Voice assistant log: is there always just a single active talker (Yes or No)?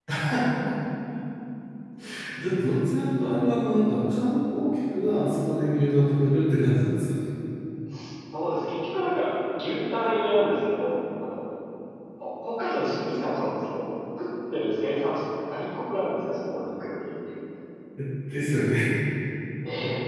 Yes